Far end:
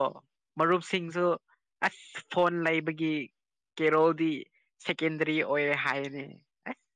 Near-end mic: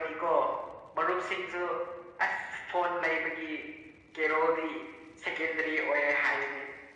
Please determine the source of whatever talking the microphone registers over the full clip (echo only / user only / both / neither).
echo only